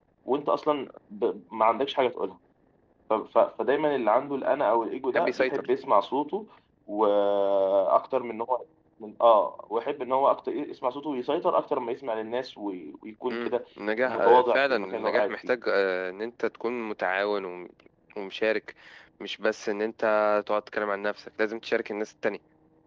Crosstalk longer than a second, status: present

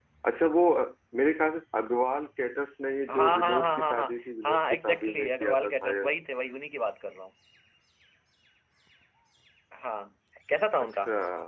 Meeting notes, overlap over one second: present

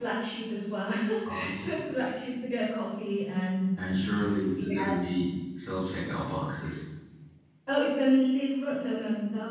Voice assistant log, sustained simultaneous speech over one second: none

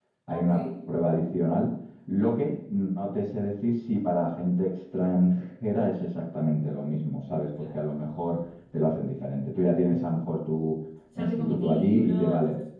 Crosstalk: present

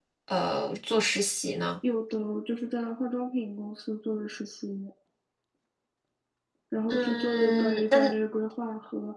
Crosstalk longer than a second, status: present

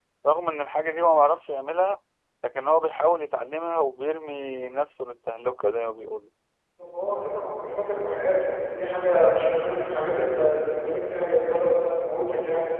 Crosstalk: none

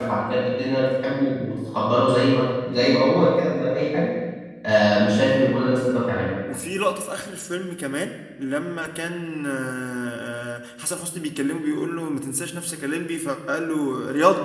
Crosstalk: none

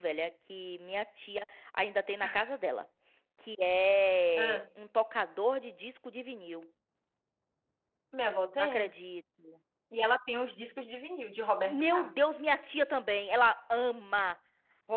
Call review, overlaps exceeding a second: none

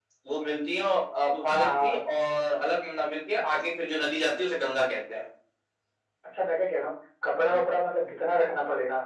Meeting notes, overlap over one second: none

